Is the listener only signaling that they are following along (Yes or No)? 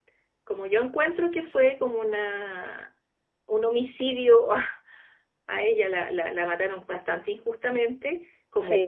Yes